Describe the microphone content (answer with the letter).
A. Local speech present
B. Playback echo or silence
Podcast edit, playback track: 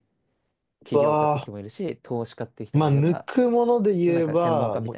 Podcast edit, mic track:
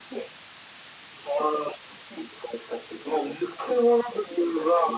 B